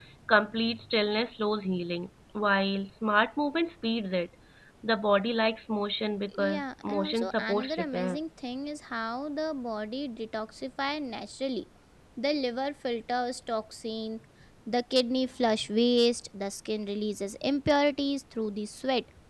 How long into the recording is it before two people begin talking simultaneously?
6.3 s

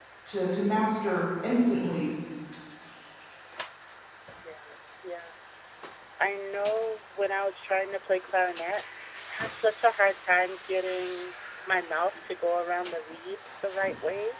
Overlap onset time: none

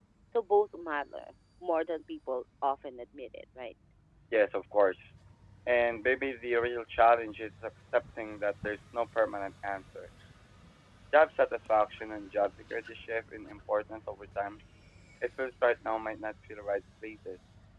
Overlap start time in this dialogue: none

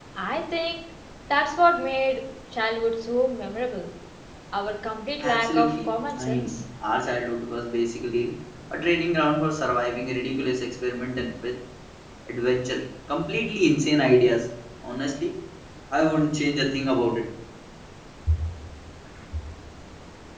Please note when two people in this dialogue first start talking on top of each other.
5.2 s

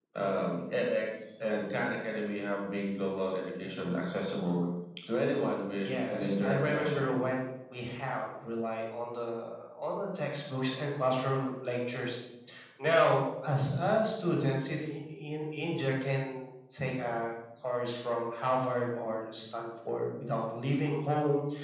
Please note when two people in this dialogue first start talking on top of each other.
5.8 s

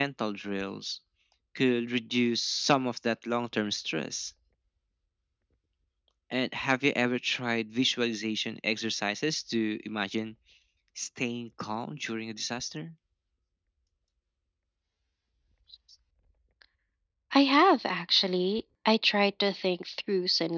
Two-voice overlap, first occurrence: none

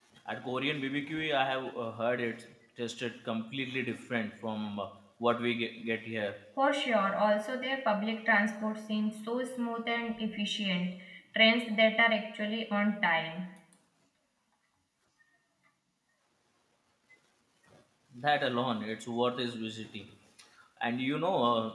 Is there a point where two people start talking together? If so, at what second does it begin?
none

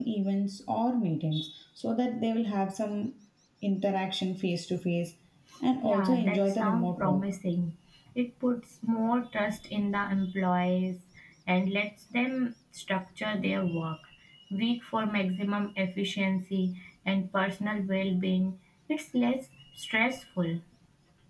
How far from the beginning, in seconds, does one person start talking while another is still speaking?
5.8 s

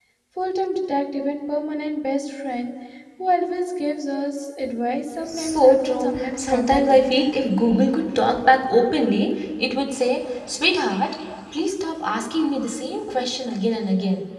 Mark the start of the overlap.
5.3 s

